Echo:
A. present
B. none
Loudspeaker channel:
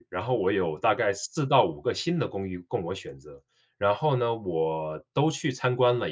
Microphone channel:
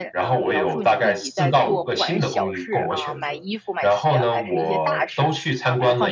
A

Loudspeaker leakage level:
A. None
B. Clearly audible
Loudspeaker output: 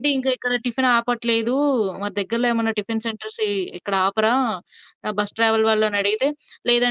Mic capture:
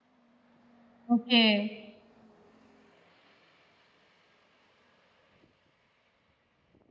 A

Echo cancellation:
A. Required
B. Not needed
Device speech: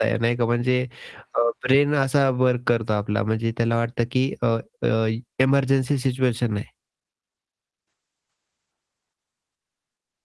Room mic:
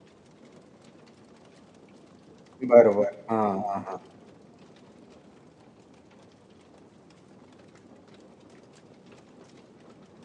B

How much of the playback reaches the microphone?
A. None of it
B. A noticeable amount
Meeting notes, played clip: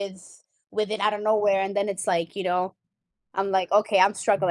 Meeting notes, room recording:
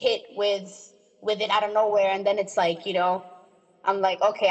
B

